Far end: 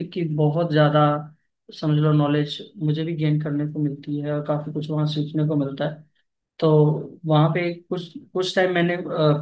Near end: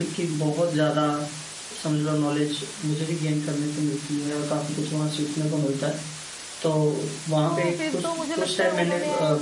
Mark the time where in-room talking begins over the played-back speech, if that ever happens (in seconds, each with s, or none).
7.4 s